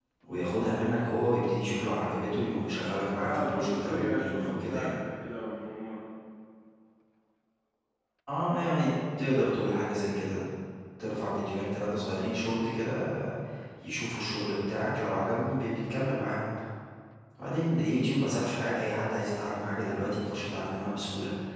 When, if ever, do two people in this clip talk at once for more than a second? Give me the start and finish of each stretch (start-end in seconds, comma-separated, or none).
3.2-4.9